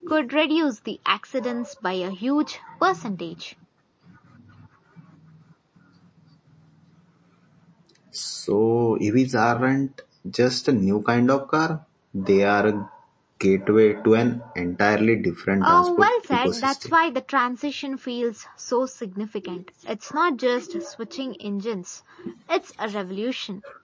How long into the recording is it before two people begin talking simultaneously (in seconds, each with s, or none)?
15.6 s